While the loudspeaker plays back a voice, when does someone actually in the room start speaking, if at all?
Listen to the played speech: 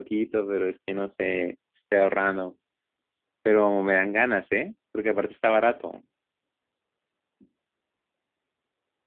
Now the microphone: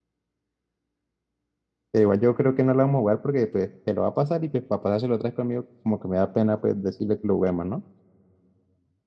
1.9 s

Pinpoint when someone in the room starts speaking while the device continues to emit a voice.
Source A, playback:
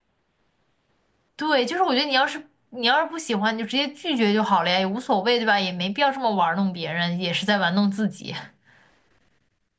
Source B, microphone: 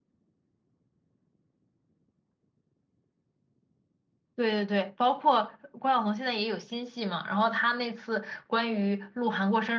4.4 s

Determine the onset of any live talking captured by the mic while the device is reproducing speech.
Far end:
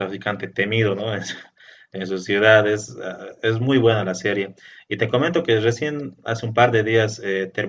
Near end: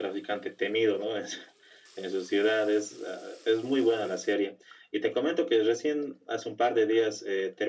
none

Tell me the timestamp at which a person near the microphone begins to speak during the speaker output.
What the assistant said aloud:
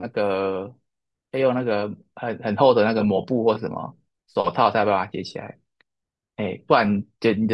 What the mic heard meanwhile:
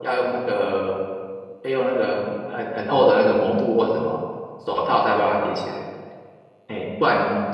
none

